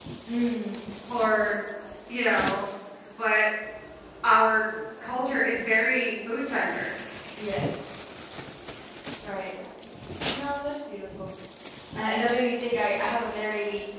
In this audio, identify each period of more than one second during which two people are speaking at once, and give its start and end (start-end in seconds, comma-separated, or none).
none